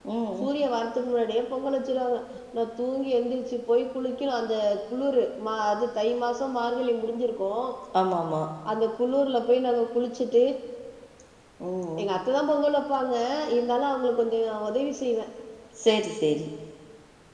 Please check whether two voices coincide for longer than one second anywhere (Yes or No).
No